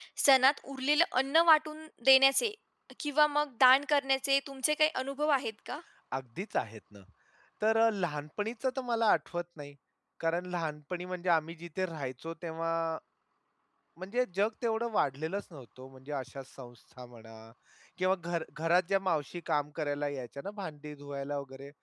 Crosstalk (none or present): none